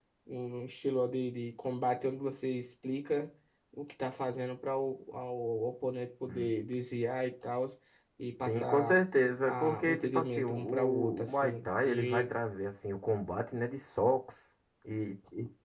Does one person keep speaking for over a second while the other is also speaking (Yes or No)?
Yes